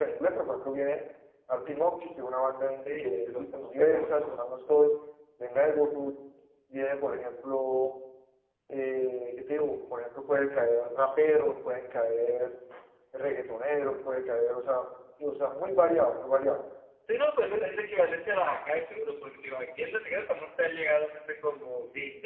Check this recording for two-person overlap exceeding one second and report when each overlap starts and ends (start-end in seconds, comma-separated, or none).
2.9-4.4